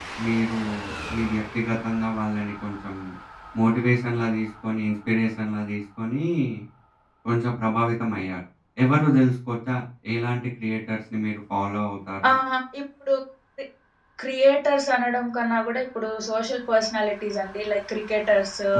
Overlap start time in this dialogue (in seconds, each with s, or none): none